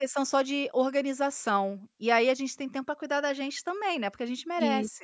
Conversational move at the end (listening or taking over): taking over